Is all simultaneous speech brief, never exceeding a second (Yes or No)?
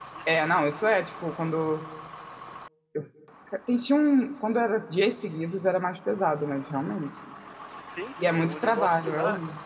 No